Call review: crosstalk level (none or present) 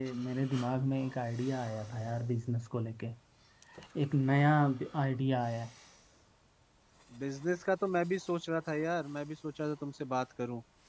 none